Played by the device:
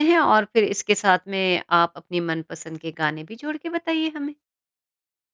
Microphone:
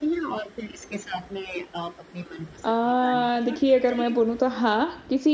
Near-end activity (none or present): present